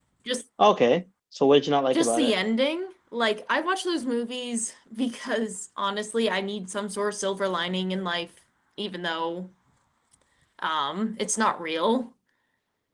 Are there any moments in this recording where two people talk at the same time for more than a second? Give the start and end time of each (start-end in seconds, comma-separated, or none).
none